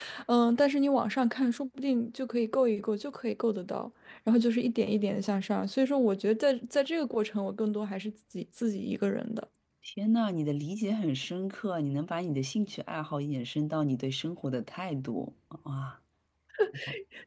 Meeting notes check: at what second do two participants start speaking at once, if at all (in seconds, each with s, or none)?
none